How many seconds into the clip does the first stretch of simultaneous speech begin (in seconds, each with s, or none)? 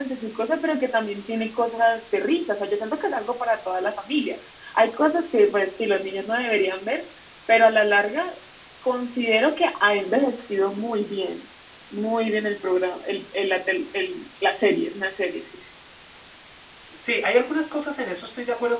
none